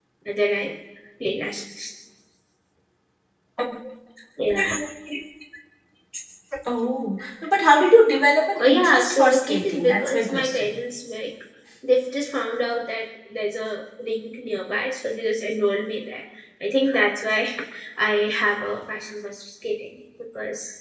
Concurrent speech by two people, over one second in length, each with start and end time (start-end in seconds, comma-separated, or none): 8.6-10.8